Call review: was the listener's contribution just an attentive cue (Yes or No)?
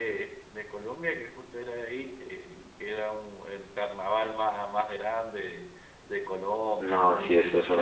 No